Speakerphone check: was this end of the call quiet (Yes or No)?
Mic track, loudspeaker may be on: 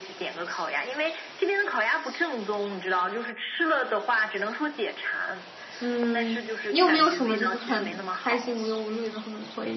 No